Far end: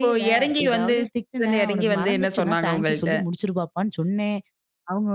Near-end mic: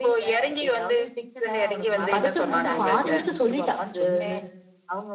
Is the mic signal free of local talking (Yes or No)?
No